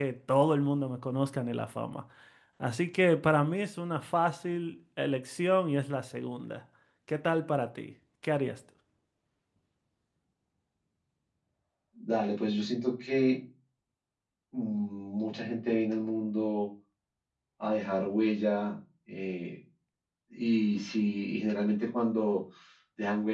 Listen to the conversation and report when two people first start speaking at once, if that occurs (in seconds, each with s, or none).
none